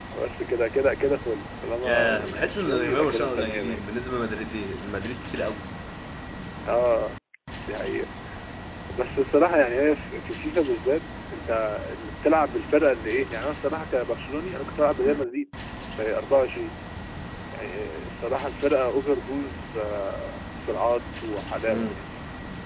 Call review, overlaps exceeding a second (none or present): present